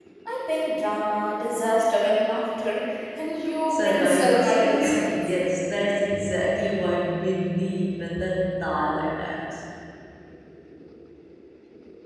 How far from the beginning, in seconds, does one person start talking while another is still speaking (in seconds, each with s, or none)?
3.7 s